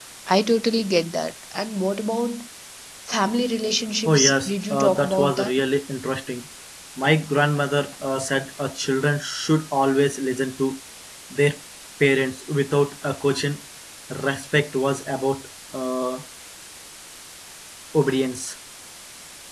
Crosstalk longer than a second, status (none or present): present